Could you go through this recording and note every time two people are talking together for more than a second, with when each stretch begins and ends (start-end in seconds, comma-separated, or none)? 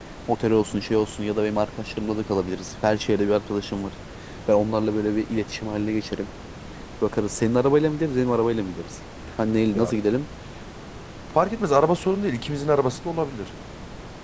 none